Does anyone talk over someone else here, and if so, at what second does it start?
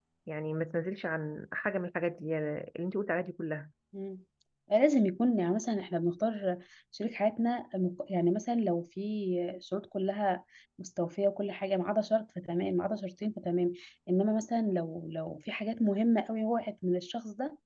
none

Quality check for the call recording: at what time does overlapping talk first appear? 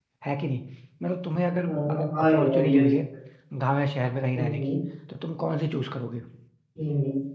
1.6 s

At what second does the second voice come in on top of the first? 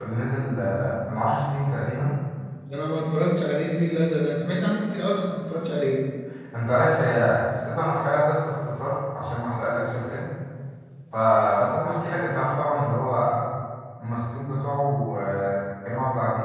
none

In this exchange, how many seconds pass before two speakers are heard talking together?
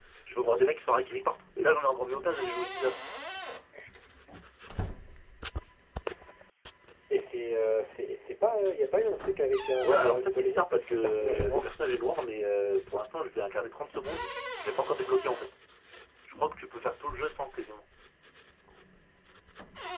9.8 s

